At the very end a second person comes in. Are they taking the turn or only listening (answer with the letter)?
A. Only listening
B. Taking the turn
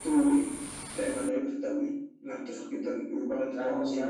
B